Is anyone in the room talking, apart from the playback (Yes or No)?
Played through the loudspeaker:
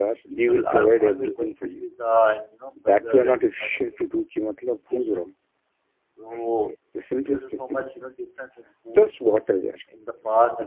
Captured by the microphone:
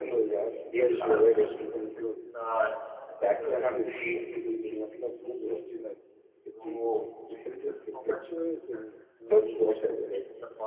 Yes